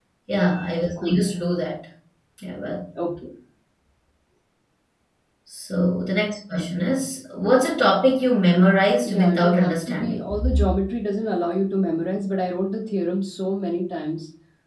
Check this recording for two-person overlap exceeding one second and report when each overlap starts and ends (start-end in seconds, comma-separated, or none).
9.0-10.2